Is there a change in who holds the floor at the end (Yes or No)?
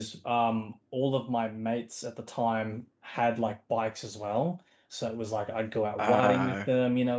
No